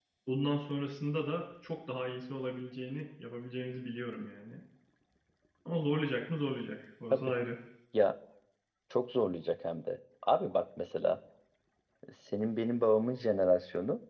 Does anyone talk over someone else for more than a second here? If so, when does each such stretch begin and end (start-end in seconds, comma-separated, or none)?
none